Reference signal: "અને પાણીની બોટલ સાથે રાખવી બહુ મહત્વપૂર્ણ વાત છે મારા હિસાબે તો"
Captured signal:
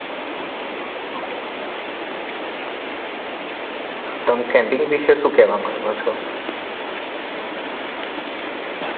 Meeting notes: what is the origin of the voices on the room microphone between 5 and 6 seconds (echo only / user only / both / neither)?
user only